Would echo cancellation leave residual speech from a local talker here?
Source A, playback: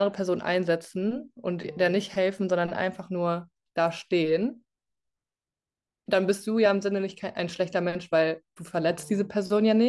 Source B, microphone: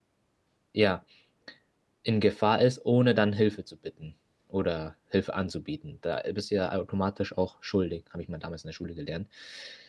Yes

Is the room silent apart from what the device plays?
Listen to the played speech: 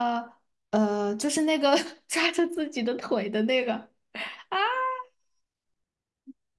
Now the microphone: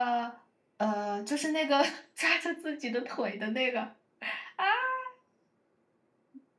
Yes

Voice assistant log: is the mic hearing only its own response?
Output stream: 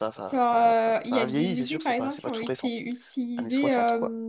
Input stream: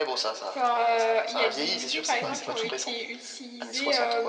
No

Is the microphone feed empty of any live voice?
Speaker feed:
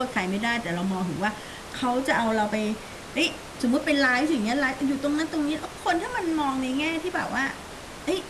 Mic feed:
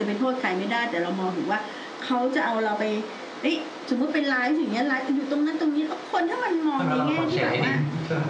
No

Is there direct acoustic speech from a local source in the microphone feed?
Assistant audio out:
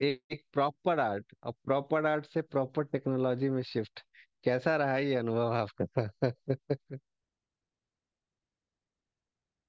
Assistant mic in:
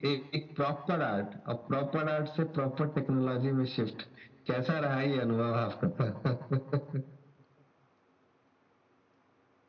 No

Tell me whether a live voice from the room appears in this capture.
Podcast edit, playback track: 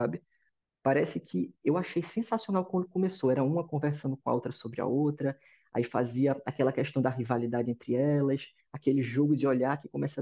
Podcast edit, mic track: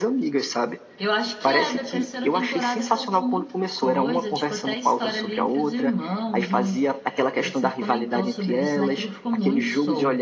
Yes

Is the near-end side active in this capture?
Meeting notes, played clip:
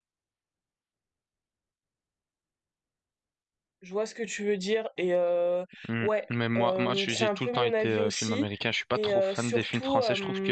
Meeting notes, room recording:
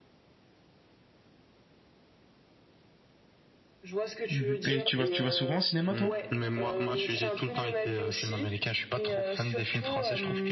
Yes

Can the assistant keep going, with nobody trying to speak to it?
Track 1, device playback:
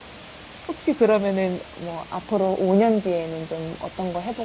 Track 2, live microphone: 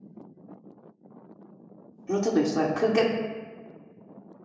No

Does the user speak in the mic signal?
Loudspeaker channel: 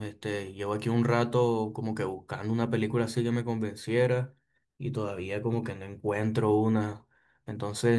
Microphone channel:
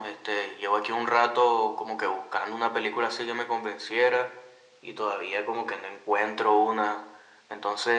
No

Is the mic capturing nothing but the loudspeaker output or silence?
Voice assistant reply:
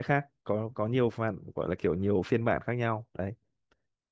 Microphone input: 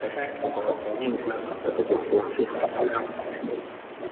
Yes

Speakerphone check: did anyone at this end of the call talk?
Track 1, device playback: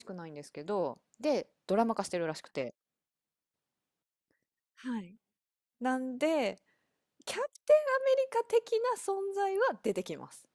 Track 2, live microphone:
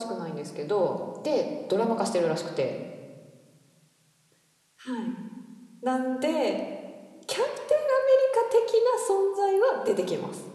No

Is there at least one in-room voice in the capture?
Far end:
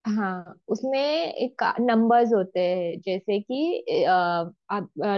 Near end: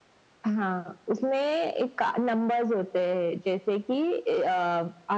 No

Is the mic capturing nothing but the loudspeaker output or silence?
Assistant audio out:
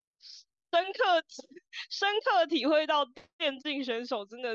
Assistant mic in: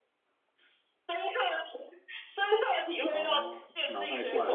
No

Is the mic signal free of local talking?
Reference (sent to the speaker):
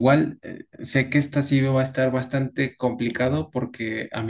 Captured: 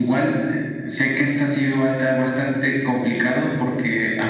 Yes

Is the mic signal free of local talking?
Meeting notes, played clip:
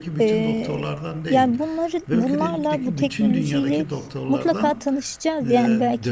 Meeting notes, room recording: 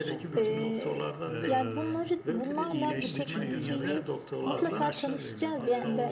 No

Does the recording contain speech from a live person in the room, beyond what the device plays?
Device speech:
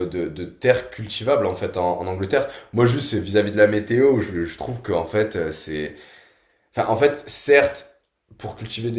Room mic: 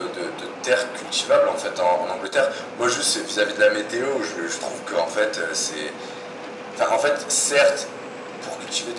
No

